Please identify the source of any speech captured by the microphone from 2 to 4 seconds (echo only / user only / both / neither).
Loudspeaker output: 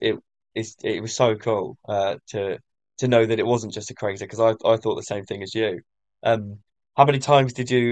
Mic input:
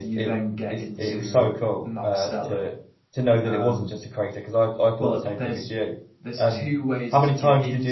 both